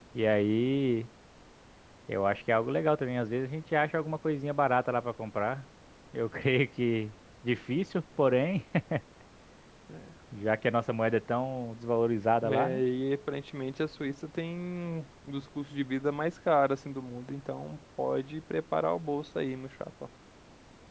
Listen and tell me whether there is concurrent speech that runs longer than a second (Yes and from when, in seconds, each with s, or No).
No